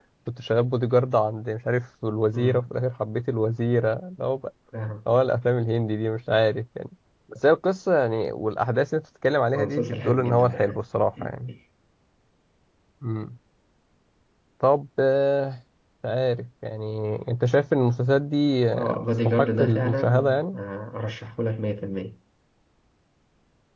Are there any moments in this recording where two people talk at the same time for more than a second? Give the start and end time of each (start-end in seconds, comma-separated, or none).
9.6-10.8, 18.7-20.6